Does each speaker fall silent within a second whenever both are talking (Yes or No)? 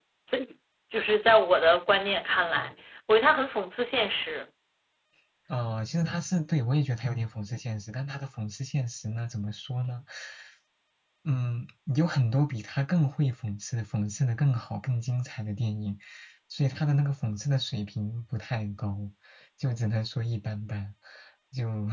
Yes